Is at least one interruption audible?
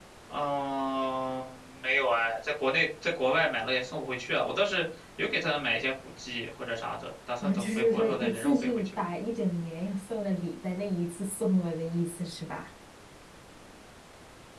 Yes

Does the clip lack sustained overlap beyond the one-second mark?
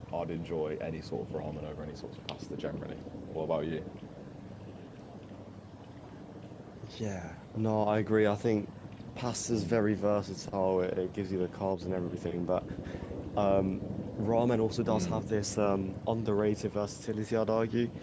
Yes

